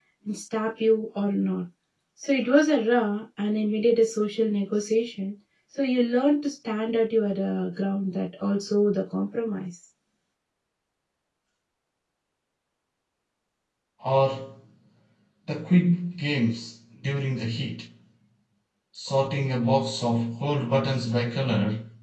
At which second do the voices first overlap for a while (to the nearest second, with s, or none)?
none